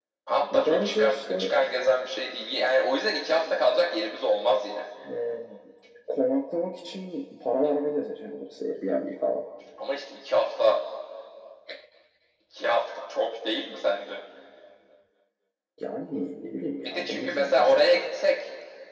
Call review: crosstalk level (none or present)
present